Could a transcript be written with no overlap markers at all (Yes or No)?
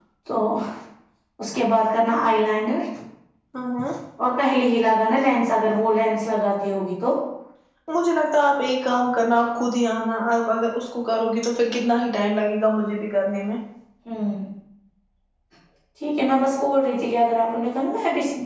Yes